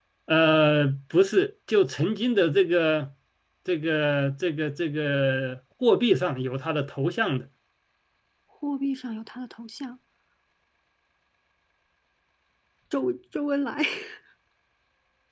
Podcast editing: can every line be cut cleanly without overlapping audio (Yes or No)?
Yes